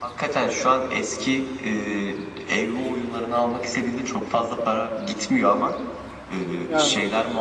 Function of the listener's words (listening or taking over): listening